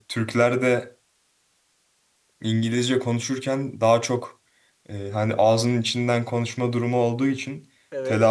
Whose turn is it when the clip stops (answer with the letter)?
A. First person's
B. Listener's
A